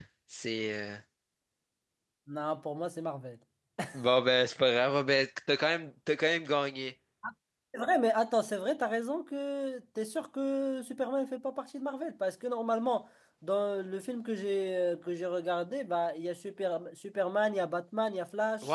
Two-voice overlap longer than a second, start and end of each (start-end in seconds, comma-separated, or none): none